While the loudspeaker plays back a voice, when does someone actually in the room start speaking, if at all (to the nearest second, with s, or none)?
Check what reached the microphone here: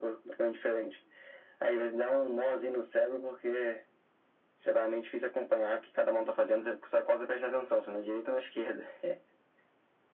none